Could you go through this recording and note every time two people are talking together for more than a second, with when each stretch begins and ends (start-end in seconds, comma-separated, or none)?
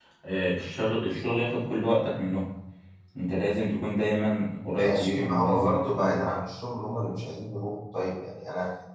4.8-6.2